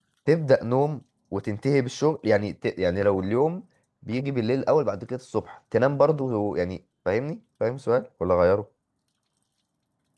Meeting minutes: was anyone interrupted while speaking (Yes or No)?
No